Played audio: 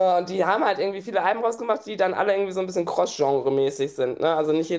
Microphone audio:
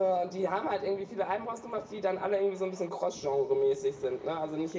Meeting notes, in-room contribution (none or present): none